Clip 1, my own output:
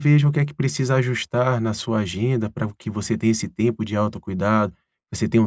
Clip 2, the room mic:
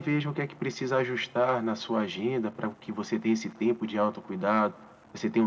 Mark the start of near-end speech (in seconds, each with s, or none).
none